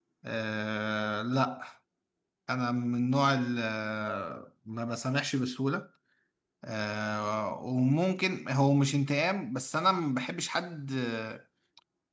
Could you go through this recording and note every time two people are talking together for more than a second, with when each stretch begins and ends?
none

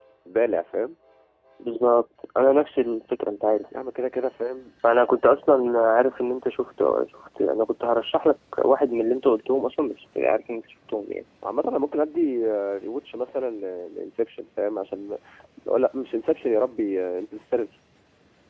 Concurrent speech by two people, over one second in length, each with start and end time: none

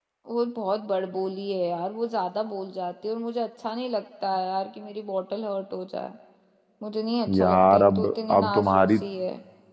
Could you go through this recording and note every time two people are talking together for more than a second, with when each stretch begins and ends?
7.4-9.0

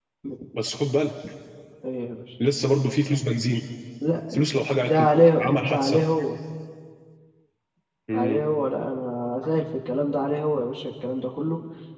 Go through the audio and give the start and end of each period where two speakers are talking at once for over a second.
4.8-6.0

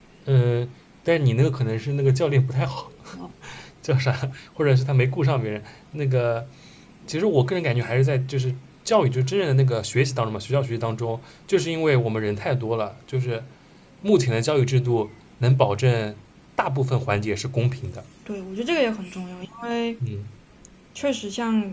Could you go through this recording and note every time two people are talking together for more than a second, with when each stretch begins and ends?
none

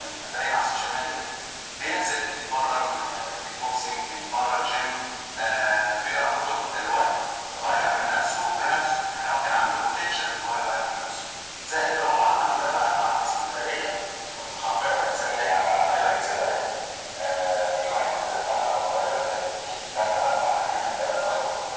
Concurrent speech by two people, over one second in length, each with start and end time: 14.5-16.5

